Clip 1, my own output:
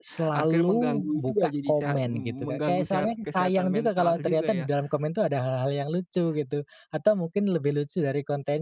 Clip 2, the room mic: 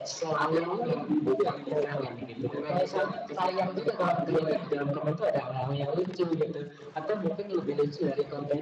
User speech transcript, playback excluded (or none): none